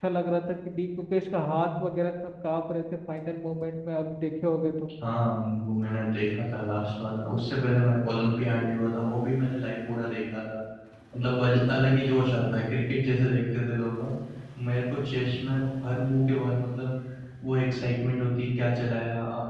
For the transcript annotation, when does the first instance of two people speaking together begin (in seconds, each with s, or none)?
none